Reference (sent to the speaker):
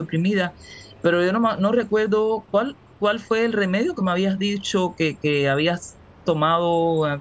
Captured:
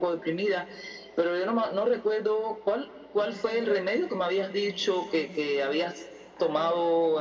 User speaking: Yes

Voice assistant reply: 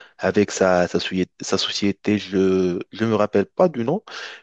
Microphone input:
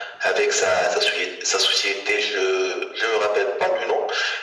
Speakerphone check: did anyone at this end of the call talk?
No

